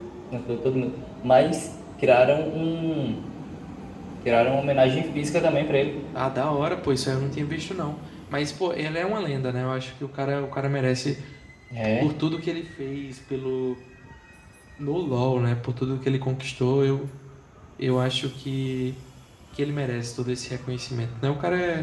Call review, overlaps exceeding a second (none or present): none